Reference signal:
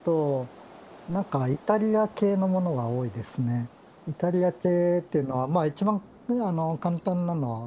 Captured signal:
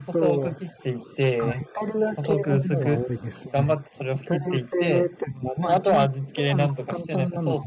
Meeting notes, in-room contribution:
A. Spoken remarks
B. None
A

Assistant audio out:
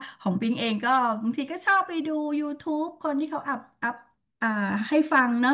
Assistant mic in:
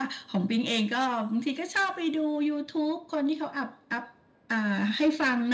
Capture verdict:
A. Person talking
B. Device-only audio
B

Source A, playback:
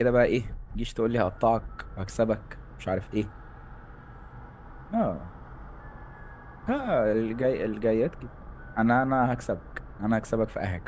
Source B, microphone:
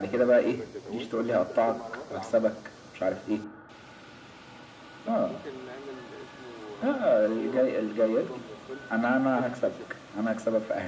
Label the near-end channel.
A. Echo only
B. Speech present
B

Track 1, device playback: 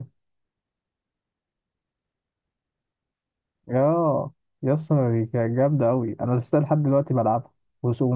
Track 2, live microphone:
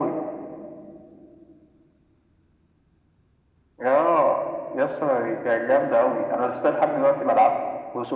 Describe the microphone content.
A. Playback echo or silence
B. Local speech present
A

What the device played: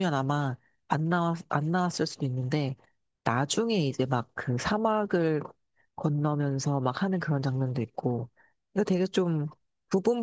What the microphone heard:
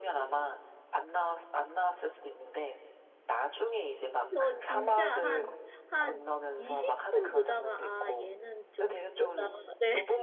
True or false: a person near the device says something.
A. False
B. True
B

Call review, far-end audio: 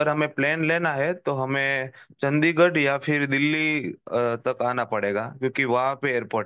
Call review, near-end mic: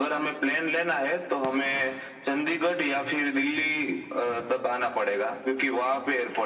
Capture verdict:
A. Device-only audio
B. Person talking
A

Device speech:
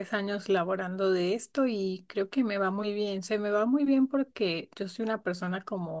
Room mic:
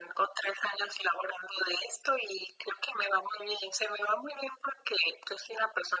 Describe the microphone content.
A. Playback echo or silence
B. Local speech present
A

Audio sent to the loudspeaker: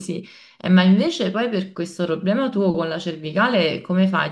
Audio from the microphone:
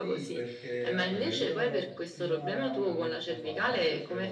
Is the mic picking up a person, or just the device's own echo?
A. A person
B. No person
A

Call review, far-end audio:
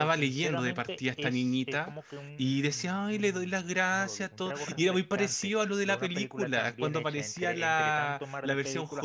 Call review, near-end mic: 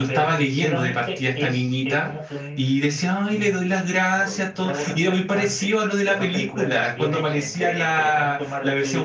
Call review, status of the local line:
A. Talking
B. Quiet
B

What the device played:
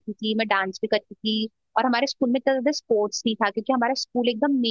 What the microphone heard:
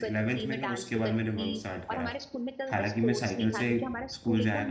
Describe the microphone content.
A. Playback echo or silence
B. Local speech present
B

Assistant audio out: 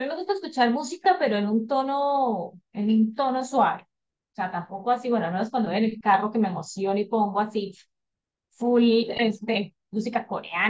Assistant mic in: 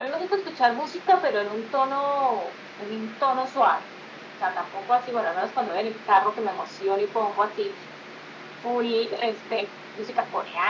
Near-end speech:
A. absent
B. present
A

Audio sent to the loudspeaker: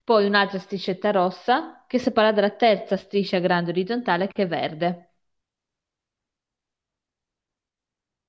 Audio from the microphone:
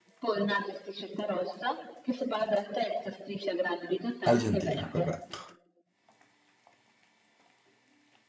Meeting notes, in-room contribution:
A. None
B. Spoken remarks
B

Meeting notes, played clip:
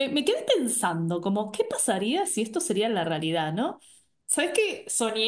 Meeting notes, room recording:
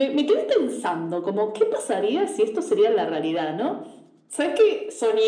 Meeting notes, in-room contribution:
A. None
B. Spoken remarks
A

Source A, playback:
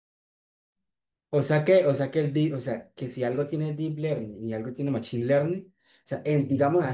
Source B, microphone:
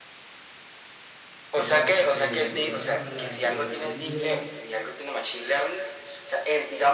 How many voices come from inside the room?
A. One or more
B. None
A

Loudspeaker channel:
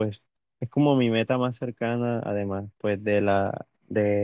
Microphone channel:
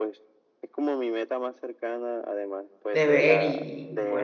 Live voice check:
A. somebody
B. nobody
A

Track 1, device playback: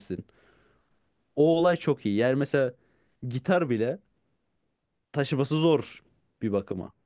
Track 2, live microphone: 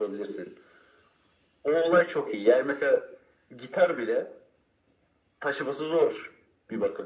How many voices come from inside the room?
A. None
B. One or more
A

